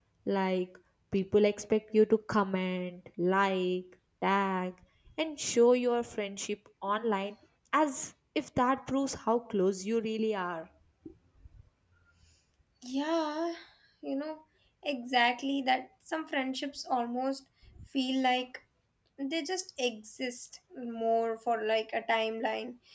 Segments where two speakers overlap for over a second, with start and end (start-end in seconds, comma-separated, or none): none